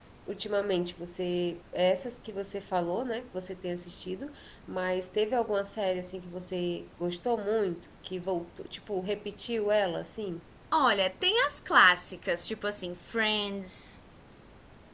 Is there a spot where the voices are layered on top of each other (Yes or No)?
No